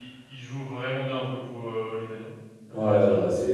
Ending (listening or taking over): taking over